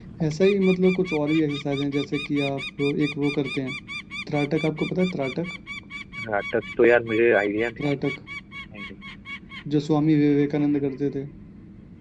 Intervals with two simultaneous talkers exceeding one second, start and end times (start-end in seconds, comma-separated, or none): none